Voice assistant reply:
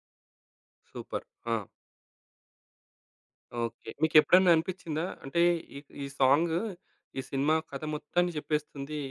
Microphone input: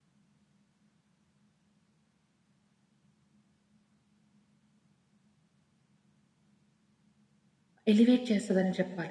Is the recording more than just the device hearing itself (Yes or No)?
Yes